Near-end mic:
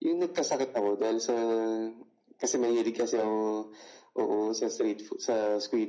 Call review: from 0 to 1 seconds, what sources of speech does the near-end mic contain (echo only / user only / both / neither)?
echo only